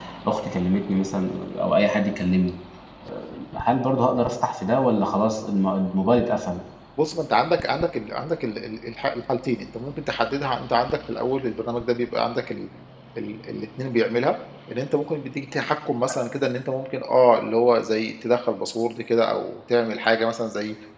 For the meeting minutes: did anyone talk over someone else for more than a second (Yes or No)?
No